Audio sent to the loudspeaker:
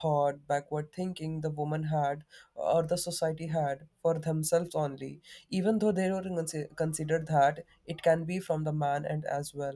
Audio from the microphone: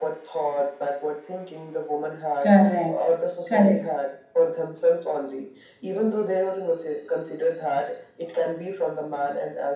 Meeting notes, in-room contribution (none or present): present